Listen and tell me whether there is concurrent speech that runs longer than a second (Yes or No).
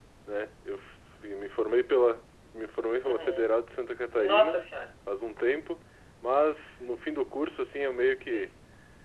No